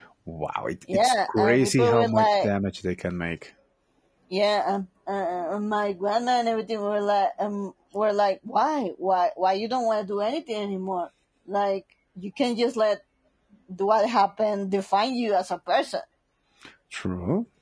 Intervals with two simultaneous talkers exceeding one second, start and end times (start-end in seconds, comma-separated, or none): 0.9-2.5